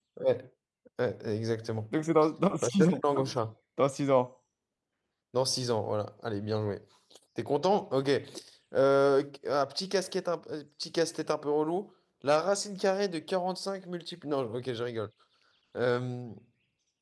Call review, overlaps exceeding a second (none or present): none